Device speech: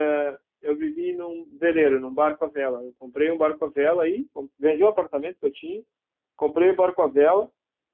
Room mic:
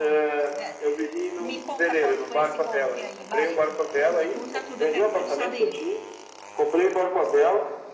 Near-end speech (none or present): present